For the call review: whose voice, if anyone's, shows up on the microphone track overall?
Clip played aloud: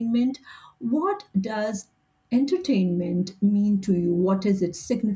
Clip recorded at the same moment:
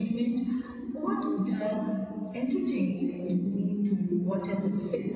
echo only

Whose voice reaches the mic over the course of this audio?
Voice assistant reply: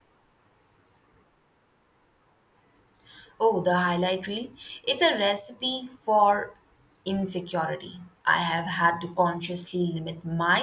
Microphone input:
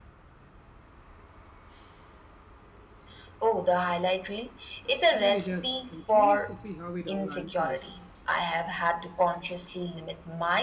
both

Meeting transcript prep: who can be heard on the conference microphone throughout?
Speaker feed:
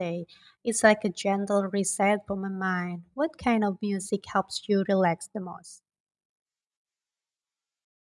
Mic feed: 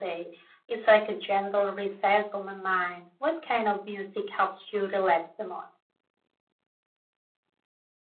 echo only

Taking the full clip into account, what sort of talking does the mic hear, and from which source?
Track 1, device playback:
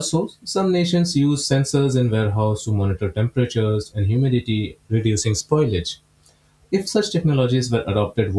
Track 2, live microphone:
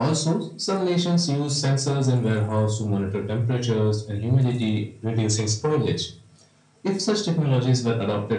echo only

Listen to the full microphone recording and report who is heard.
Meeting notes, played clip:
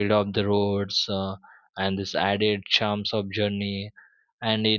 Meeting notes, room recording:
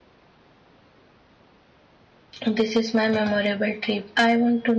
user only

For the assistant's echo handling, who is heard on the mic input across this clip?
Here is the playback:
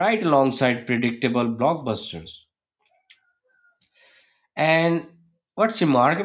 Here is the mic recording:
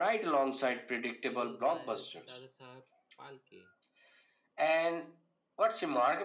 both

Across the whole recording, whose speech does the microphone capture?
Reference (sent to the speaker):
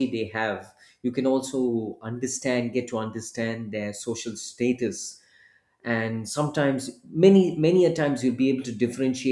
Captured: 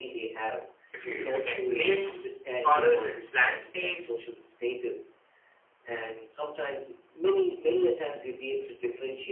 both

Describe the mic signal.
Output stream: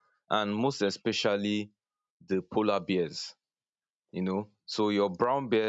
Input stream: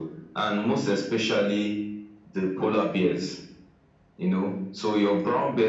echo only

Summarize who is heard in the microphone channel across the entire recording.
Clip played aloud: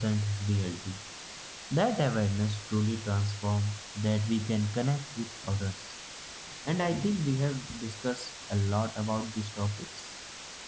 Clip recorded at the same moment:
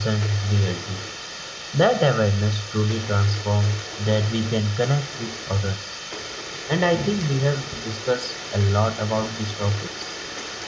echo only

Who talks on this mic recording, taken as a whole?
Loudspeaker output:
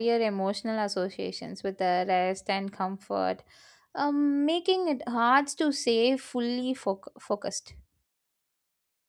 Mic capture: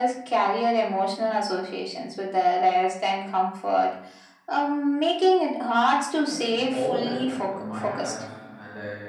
both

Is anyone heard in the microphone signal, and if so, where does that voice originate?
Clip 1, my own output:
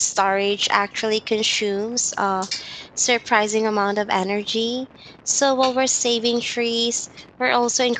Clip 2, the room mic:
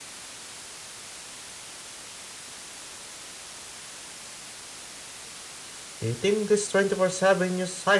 user only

